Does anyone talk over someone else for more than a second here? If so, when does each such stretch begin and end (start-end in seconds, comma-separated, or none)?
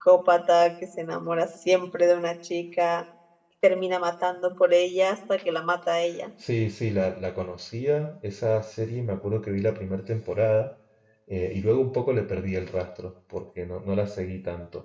none